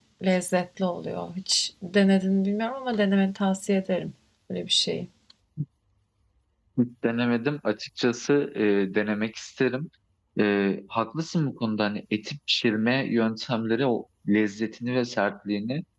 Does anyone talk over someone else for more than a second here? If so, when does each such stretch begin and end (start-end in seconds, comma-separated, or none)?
none